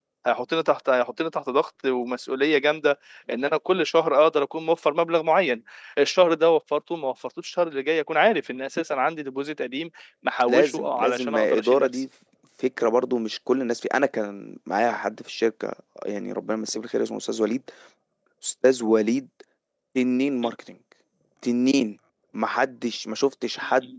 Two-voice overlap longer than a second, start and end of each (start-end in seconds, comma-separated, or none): 10.5-12.0